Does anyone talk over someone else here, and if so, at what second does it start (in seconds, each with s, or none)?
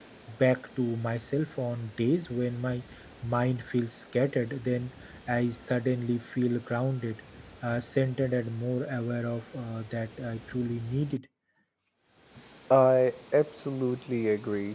none